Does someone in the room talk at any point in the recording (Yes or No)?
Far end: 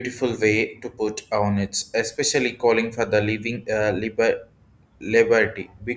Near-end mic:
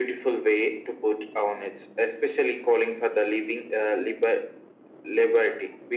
No